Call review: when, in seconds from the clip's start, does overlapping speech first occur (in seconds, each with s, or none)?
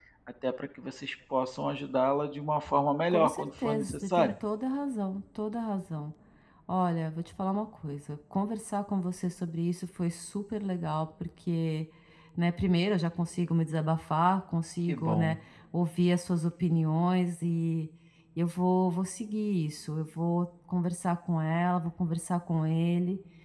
3.1 s